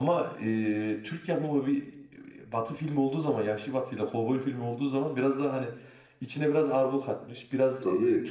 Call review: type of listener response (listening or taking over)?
listening